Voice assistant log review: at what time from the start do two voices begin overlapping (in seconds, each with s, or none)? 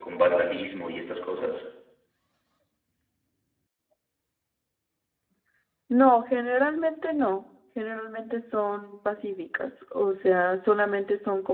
none